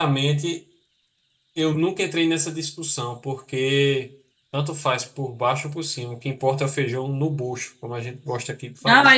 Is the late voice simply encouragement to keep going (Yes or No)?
No